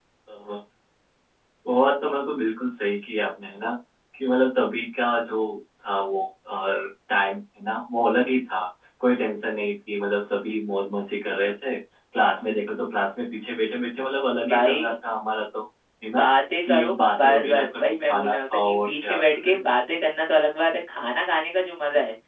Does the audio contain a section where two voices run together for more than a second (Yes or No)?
Yes